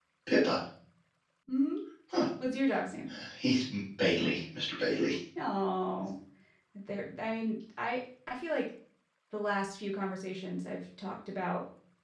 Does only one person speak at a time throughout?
Yes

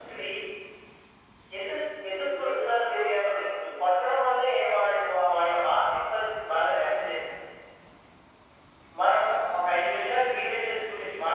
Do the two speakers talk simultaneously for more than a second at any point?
Yes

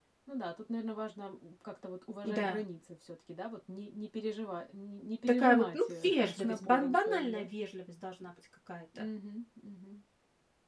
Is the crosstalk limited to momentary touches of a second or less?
No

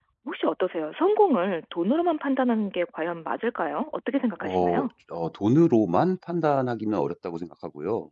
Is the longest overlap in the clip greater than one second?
No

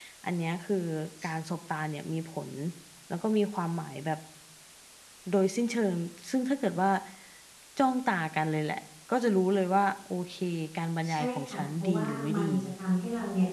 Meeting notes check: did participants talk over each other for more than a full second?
Yes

